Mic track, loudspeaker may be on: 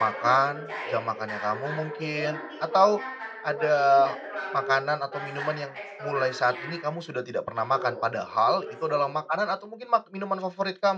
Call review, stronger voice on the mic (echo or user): user